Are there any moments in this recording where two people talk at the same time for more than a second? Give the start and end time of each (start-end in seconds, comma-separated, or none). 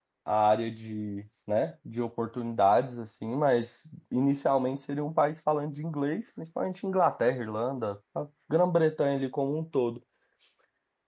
none